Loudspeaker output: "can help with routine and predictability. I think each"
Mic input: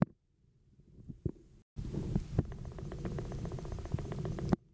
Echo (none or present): none